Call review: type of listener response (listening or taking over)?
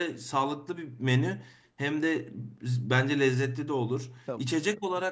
listening